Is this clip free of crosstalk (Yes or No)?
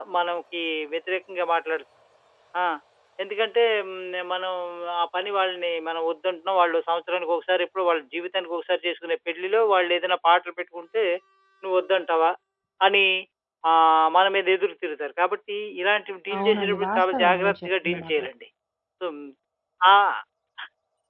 No